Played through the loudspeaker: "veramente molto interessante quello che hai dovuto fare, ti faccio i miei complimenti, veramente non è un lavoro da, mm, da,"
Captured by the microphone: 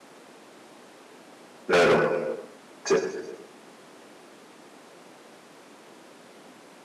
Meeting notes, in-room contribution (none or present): present